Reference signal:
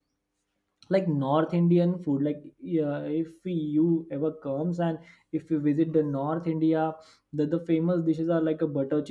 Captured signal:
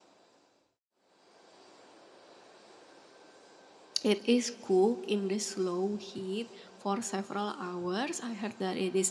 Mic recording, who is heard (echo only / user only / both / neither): user only